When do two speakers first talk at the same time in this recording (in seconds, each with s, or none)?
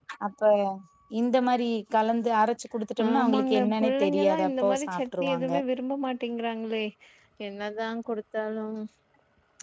3.0 s